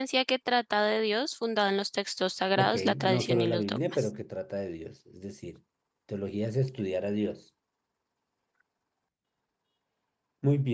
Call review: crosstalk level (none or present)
present